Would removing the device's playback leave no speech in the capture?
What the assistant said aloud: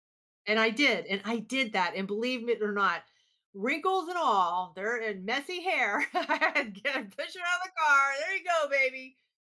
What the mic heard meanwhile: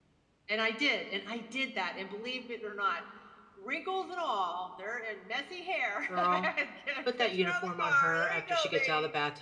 No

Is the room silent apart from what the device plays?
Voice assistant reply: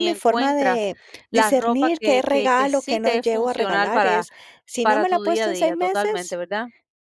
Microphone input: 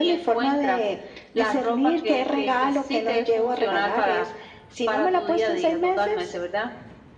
Yes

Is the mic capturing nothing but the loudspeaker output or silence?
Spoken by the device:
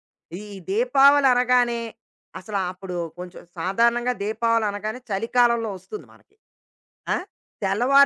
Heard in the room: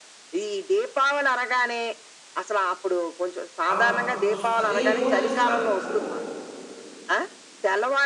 No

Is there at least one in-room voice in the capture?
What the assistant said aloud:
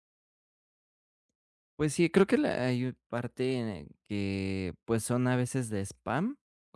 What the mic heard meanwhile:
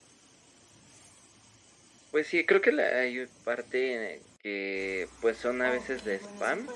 Yes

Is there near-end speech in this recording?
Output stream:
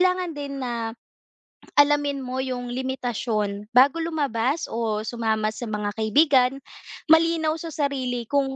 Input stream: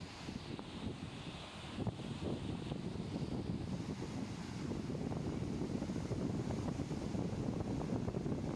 No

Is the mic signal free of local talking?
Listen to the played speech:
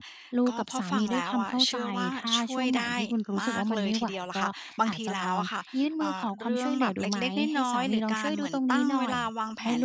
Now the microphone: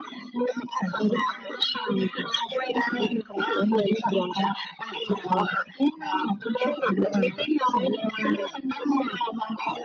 Yes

